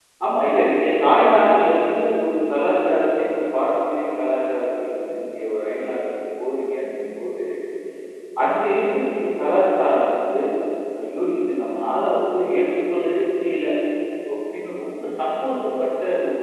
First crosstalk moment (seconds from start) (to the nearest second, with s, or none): none